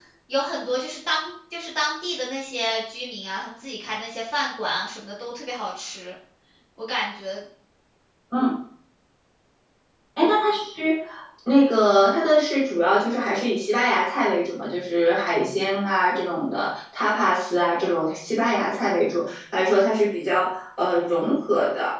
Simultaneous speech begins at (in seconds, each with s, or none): none